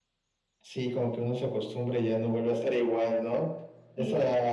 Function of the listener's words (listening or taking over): listening